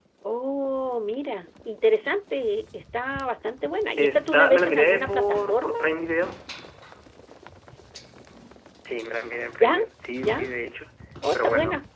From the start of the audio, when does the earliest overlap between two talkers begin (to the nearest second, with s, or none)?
4 s